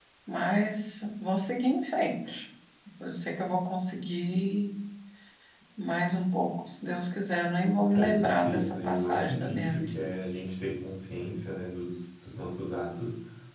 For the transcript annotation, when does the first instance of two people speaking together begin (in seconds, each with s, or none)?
7.9 s